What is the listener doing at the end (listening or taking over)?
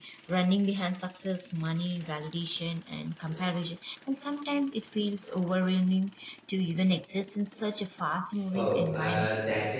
taking over